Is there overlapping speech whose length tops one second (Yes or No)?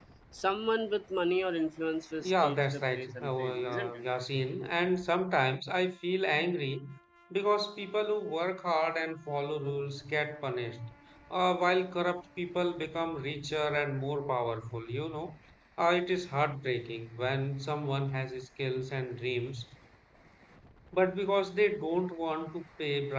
Yes